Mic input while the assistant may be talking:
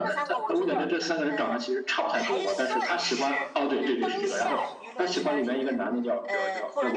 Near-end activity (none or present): present